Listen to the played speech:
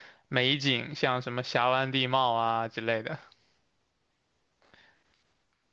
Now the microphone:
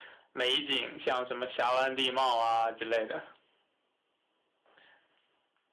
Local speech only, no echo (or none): none